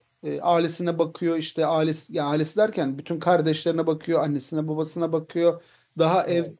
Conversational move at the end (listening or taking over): listening